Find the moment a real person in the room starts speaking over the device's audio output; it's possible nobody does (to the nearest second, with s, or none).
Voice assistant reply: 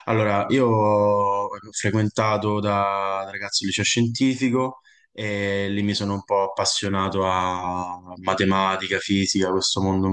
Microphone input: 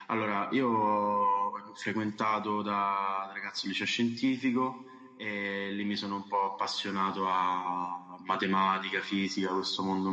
none